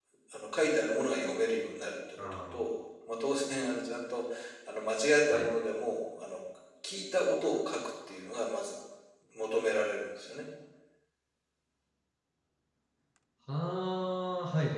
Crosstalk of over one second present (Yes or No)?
No